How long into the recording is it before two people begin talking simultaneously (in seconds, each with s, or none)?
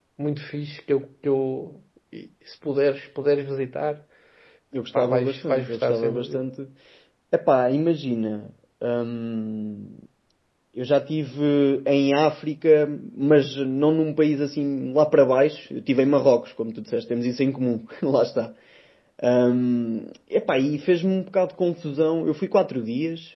4.9 s